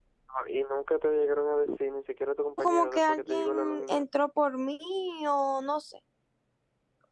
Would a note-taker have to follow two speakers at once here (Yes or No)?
Yes